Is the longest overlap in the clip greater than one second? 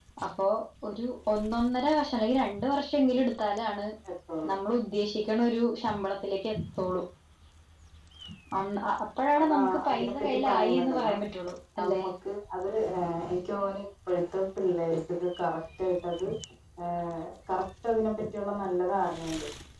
Yes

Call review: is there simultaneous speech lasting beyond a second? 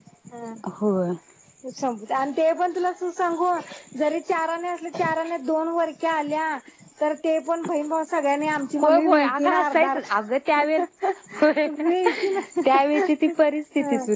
Yes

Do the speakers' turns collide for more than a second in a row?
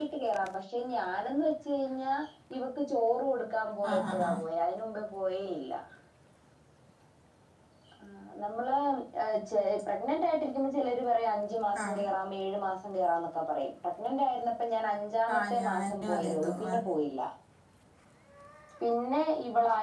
Yes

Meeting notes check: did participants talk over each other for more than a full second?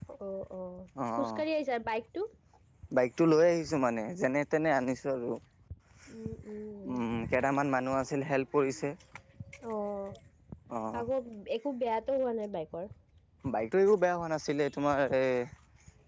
No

